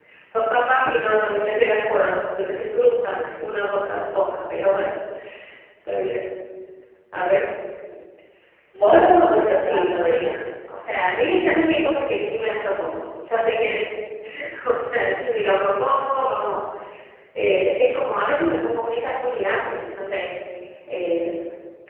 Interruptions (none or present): present